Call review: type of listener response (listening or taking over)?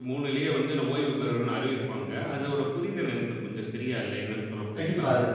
taking over